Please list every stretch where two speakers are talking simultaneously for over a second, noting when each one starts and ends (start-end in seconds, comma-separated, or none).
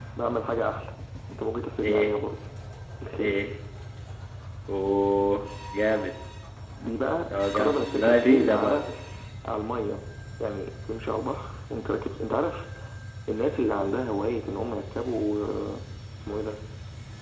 7.5-8.8